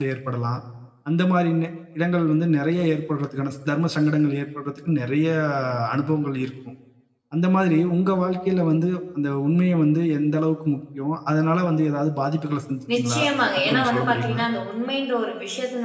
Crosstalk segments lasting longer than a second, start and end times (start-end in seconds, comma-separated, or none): 12.9-14.4